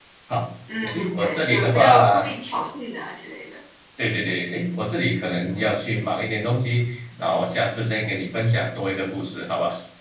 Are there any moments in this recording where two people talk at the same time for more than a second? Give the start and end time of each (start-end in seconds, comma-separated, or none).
0.8-2.2